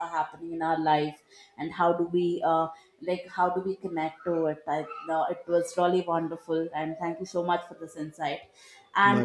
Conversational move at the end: listening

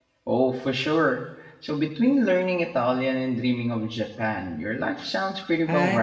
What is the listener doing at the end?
taking over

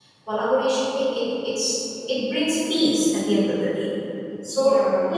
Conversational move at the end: listening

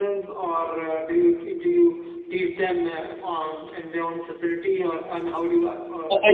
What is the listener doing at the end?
taking over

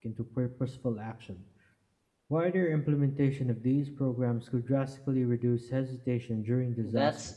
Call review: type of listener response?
taking over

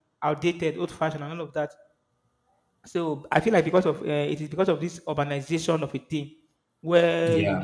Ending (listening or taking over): listening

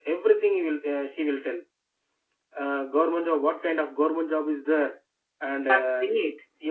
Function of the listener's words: listening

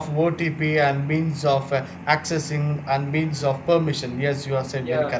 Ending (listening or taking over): taking over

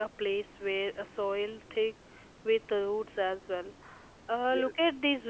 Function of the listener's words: listening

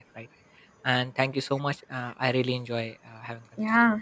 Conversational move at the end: taking over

